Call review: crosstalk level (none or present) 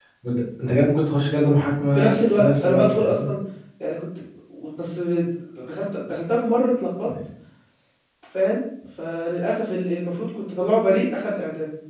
present